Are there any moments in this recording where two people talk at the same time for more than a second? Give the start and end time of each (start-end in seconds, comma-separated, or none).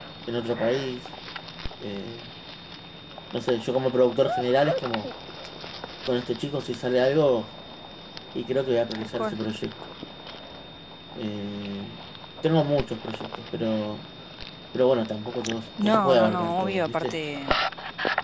15.8-17.1